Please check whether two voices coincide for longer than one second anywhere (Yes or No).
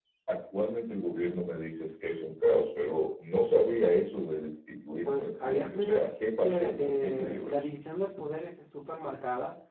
Yes